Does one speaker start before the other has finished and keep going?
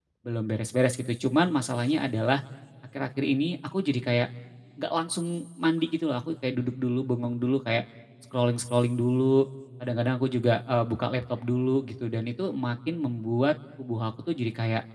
No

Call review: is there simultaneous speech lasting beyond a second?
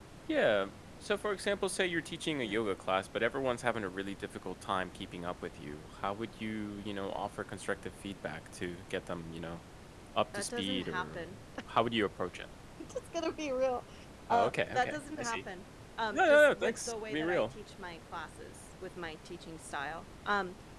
Yes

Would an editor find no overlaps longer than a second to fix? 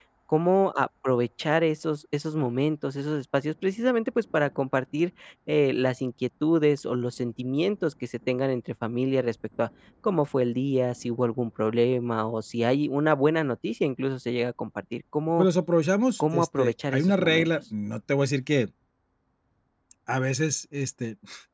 No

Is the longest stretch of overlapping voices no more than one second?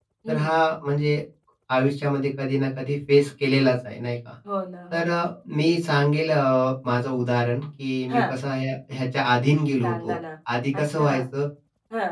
Yes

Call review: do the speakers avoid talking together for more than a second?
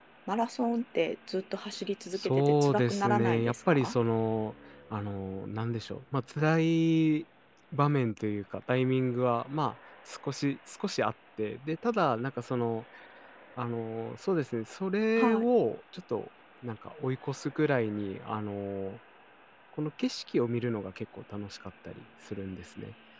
No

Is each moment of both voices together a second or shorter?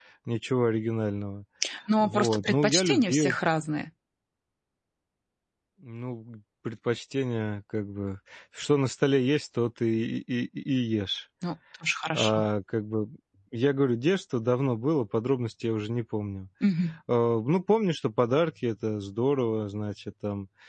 No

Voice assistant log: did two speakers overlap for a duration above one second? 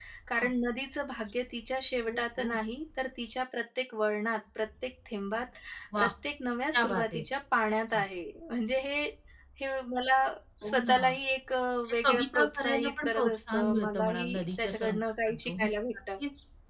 Yes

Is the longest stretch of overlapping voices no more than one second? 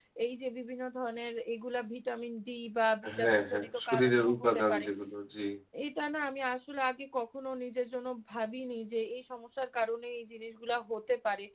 No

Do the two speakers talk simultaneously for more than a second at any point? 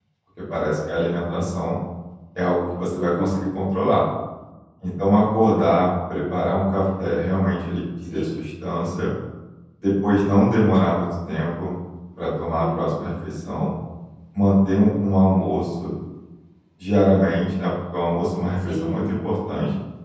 No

